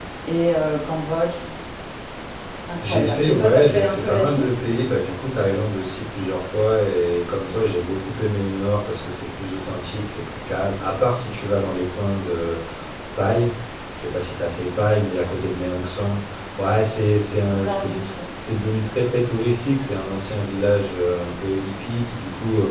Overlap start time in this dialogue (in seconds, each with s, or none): 2.8 s